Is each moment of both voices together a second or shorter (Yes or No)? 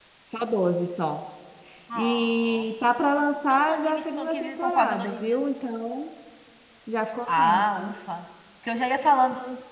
No